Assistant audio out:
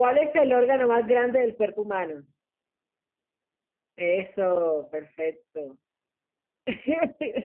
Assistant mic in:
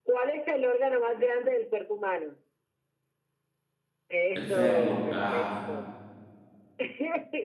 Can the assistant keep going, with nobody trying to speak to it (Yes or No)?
No